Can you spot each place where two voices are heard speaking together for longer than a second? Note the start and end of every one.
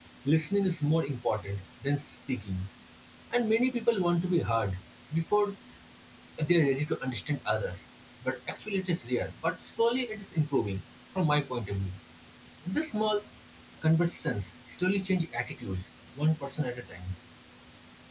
none

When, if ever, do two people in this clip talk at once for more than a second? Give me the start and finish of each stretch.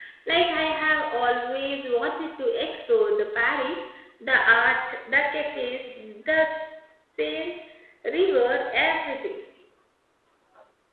none

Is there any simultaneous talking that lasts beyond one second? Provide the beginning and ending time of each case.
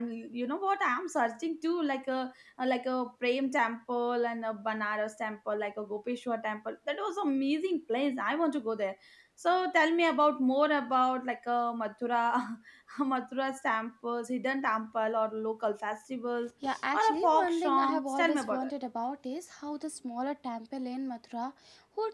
16.9-18.7

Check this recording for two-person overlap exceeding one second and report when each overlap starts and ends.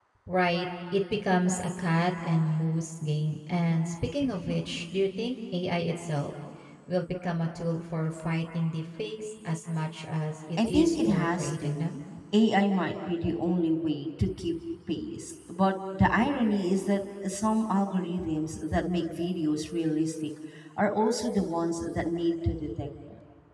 10.6-11.8

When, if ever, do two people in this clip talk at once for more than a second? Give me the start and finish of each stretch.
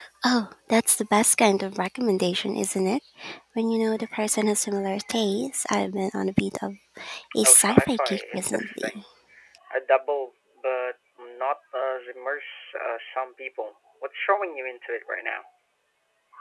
7.4-9.0

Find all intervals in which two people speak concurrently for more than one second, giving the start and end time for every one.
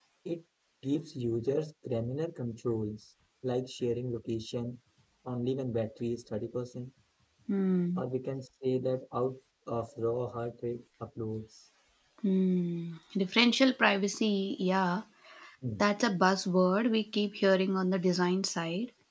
none

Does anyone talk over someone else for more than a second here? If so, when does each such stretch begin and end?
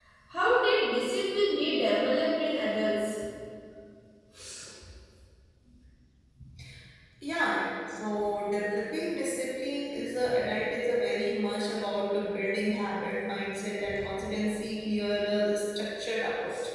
none

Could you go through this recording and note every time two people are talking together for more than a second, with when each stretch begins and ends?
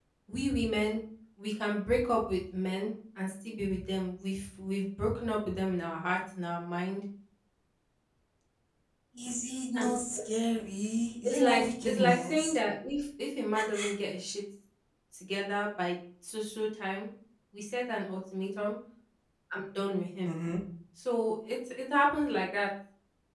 11.2-12.6

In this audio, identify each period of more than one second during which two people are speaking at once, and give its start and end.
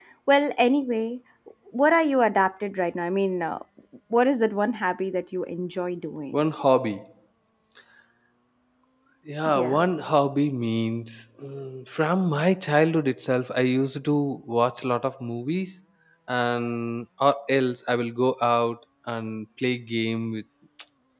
none

